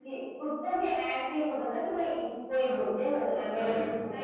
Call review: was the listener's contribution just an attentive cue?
Yes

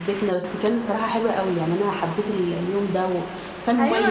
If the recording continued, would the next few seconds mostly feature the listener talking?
Yes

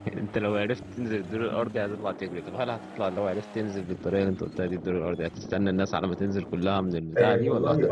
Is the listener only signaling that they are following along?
No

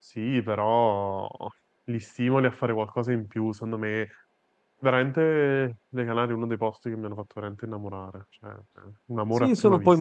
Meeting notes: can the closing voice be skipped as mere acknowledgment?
No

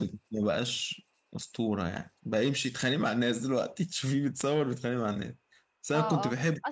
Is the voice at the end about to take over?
Yes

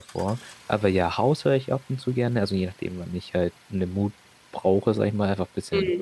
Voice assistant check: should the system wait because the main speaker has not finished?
Yes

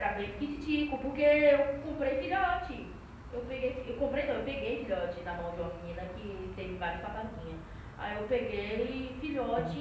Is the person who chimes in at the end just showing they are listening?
No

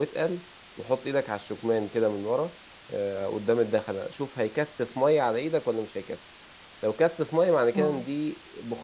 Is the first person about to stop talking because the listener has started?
No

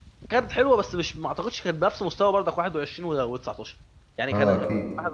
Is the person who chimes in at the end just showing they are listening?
Yes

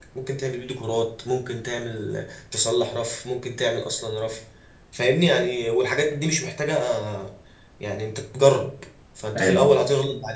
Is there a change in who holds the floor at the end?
No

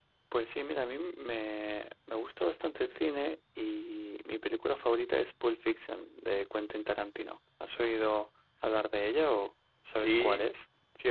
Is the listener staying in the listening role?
No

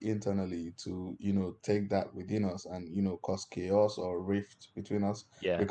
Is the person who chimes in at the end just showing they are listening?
Yes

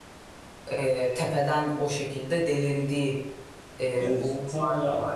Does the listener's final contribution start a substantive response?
Yes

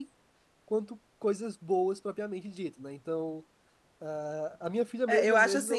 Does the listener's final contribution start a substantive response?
Yes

